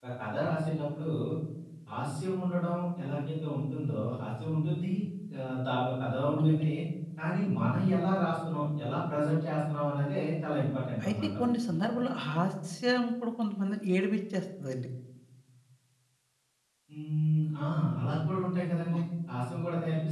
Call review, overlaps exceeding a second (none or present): none